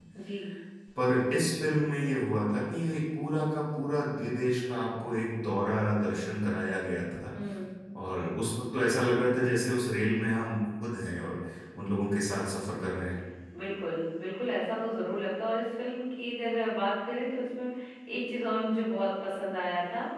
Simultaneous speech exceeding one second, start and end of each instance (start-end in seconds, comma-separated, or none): none